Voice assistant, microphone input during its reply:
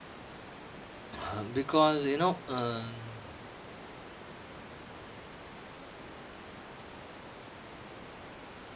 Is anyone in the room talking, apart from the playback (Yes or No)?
Yes